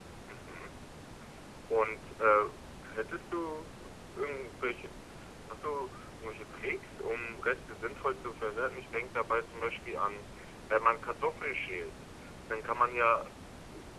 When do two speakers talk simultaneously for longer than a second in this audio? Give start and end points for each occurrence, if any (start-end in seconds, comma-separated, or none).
none